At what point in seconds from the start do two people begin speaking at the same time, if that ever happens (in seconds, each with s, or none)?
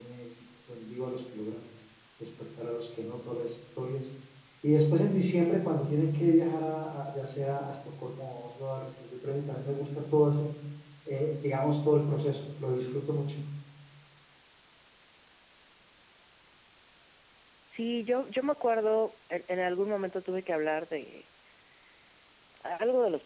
none